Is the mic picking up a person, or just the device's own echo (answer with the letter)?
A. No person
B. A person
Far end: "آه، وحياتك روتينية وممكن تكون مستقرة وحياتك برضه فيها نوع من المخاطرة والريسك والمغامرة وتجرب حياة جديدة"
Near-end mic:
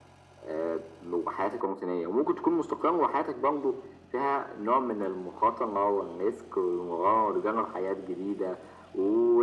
A